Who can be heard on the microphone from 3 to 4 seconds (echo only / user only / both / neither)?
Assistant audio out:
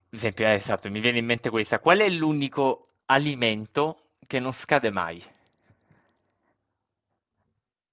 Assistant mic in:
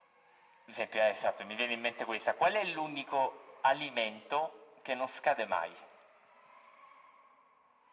echo only